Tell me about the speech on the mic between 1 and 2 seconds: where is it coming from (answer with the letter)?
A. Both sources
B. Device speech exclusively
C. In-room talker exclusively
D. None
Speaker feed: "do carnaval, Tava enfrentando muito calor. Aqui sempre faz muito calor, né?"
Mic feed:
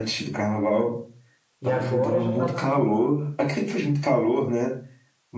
A